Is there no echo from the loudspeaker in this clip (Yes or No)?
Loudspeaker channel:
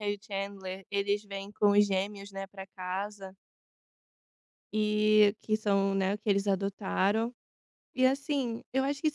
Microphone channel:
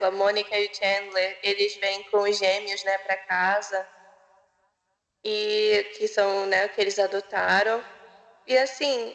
No